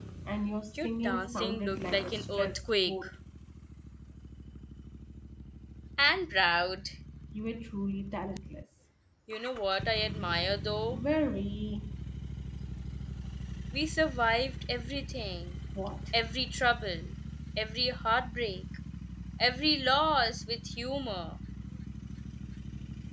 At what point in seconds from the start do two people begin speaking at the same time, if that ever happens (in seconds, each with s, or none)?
0.8 s